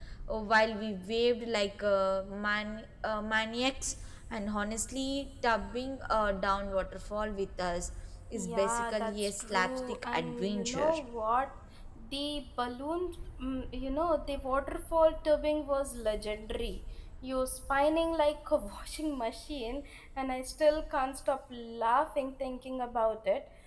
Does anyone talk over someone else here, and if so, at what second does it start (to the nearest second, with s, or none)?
8 s